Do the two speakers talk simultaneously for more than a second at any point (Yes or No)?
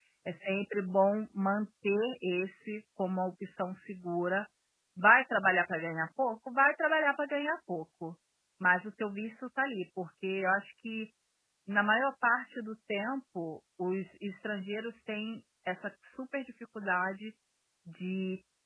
No